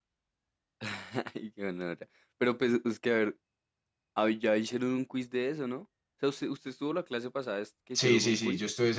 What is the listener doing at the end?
taking over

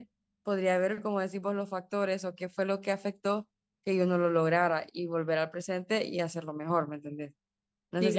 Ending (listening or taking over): taking over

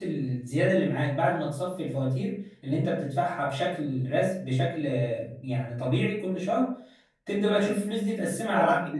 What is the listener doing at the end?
taking over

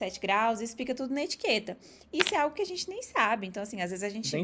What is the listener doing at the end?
listening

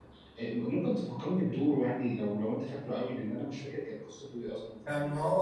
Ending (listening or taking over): taking over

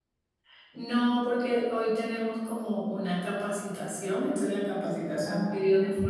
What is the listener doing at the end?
listening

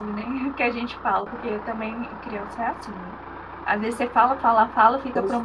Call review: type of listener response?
listening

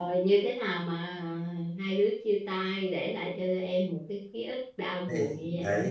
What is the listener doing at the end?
taking over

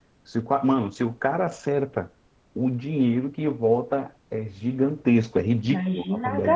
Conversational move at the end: taking over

